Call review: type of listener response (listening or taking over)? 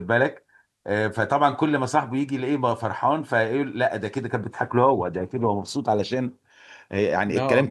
listening